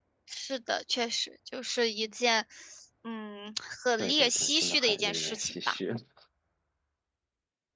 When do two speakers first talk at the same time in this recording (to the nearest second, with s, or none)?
4 s